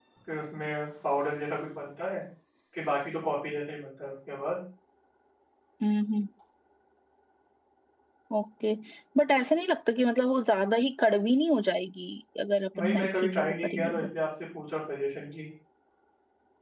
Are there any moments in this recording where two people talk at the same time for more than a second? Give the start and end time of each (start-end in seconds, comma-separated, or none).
12.8-14.0